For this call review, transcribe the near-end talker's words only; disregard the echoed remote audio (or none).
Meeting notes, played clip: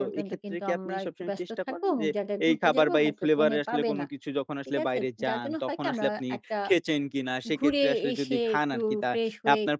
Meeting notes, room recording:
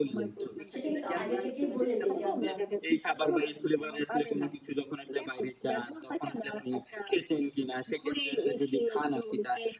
সেটা কিন্তু আগে থেকেই বলে দেই যে, "আমরা